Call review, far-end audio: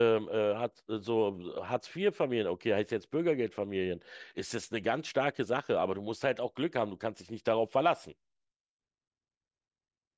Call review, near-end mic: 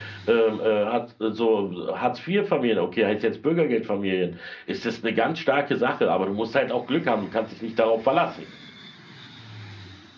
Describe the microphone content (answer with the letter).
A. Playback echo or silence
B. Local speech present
A